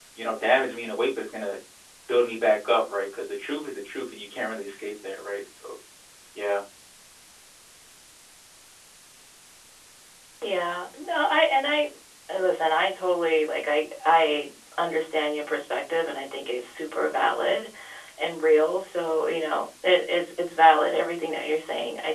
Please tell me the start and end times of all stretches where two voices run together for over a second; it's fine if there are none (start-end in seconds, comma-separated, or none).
none